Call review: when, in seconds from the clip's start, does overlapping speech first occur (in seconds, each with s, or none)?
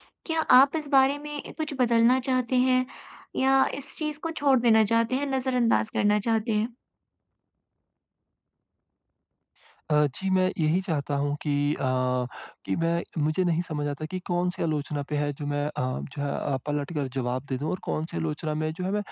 none